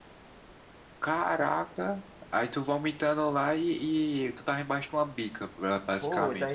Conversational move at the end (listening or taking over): taking over